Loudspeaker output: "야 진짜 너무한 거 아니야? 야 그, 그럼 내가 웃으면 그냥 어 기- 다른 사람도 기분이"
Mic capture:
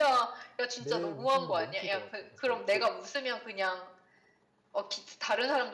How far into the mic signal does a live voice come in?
1 s

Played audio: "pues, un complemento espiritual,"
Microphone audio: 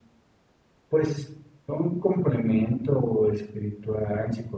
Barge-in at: none

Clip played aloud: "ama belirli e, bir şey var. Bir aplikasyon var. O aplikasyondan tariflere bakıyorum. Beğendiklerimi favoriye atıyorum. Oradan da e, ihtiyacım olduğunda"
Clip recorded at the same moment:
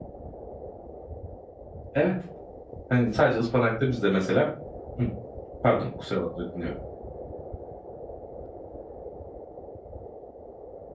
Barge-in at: 2 s

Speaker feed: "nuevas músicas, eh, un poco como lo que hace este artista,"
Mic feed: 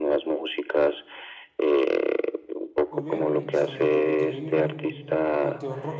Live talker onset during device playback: 3 s

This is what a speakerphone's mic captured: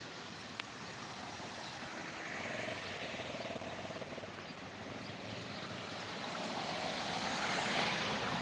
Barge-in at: none

